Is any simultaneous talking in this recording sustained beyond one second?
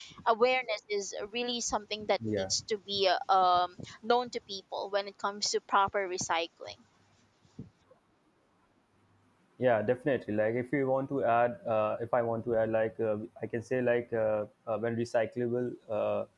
No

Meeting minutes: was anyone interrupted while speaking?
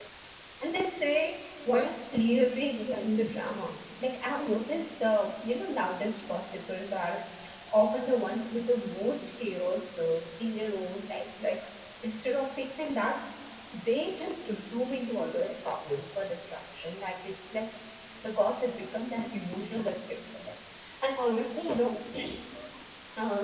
No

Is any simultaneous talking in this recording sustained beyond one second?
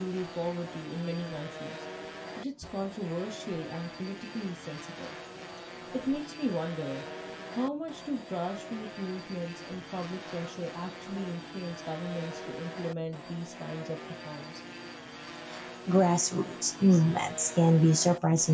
No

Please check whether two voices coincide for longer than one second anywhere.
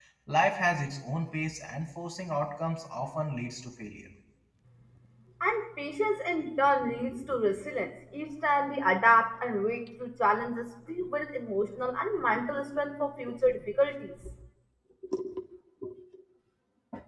No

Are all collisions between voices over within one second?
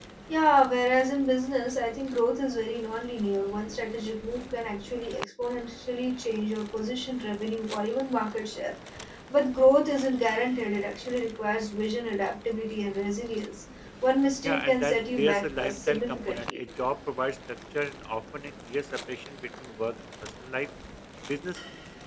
No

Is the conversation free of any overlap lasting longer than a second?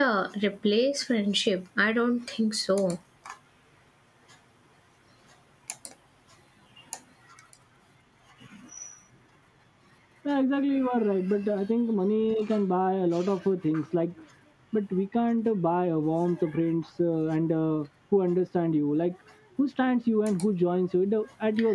Yes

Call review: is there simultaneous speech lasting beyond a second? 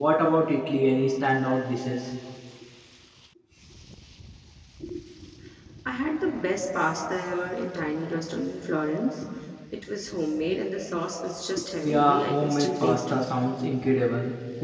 Yes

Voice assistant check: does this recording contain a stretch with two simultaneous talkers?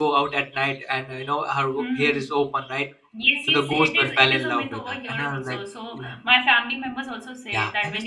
Yes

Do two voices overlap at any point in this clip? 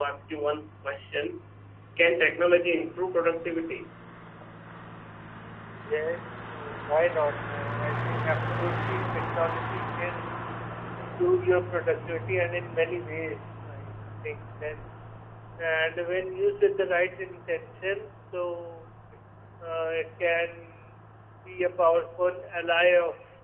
No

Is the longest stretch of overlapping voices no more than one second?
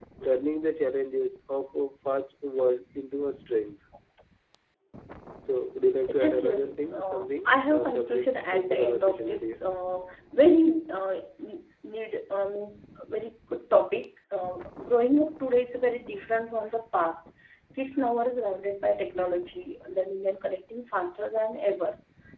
No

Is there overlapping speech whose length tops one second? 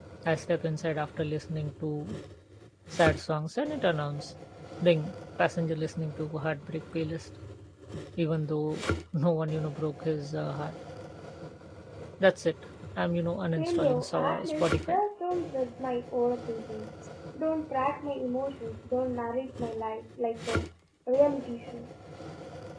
Yes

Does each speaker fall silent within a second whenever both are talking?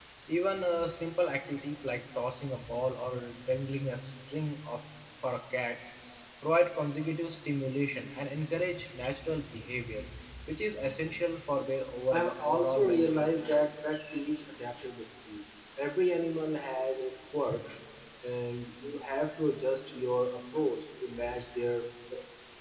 No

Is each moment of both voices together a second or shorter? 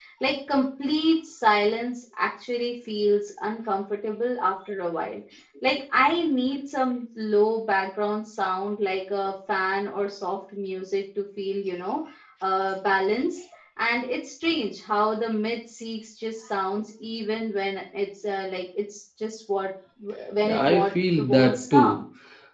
No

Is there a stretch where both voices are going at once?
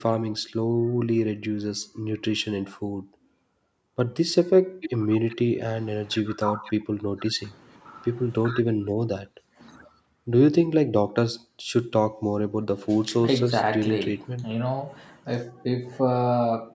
Yes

